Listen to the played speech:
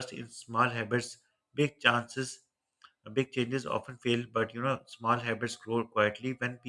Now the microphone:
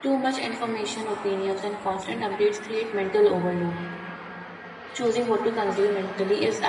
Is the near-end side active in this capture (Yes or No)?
Yes